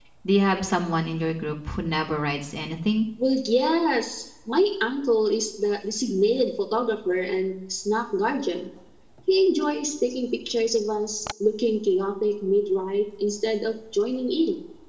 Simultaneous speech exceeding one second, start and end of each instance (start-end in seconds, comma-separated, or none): none